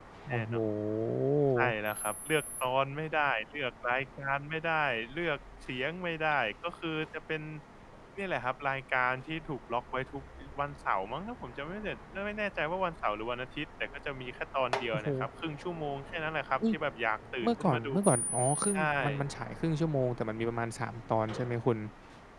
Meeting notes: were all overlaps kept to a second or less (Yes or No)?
Yes